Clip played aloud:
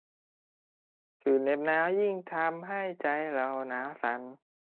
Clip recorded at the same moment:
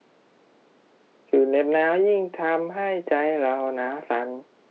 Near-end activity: none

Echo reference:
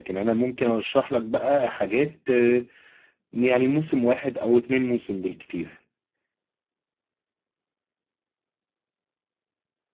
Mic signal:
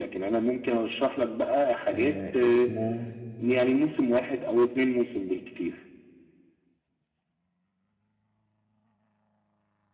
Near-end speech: present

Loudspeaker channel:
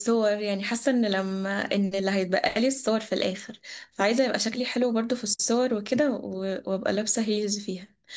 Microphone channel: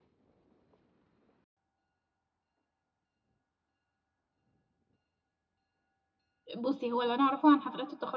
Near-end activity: present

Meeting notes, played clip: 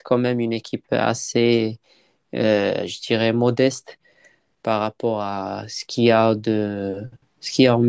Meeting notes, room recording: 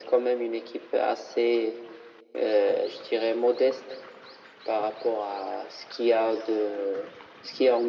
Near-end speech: none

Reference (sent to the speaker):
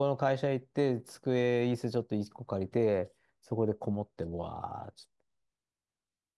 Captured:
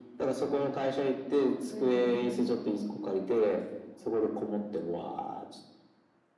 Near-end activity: present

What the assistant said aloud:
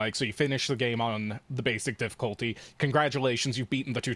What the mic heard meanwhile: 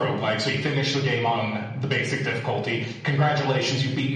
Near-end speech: none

